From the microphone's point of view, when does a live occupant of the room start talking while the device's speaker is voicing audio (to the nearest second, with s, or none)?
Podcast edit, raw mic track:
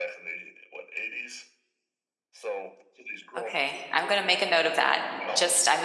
3 s